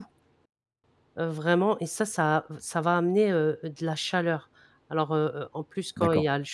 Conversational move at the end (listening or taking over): listening